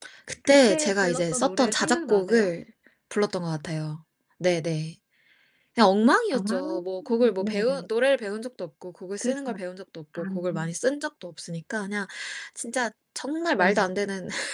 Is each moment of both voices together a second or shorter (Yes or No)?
No